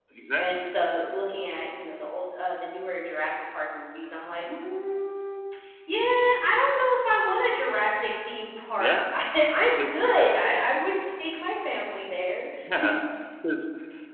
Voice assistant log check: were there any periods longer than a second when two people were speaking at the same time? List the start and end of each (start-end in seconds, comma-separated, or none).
none